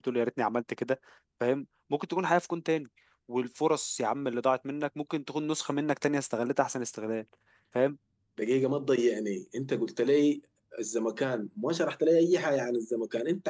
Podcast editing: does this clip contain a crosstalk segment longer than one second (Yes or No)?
No